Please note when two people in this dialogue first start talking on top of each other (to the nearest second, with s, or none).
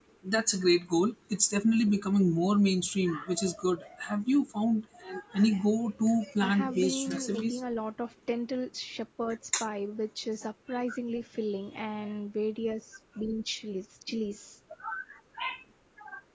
6 s